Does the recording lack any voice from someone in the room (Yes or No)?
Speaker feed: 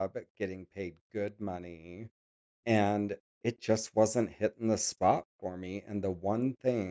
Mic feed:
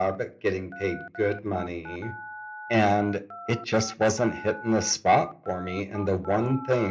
Yes